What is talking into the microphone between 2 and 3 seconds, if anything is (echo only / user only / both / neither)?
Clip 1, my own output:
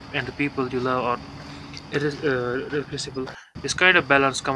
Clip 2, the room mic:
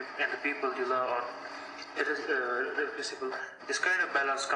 echo only